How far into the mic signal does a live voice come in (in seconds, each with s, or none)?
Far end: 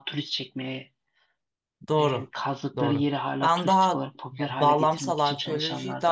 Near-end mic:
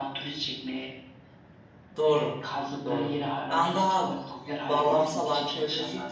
none